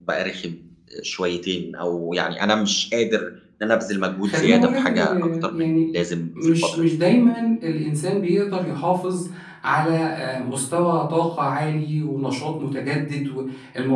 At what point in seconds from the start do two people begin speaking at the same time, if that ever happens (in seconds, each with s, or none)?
4.2 s